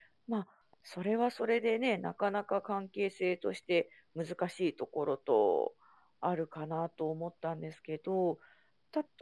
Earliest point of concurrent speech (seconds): none

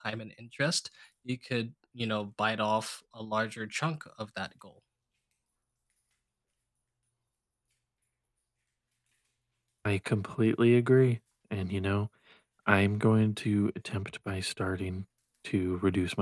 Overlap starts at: none

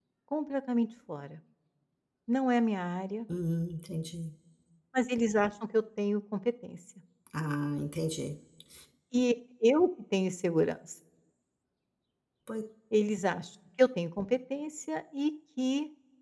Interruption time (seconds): none

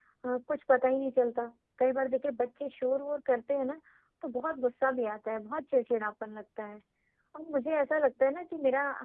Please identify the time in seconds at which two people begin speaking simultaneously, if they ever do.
none

